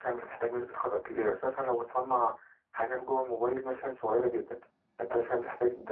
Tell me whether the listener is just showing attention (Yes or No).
Yes